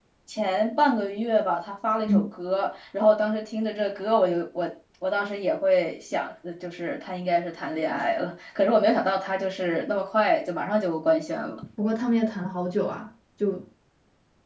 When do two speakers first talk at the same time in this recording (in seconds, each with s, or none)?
none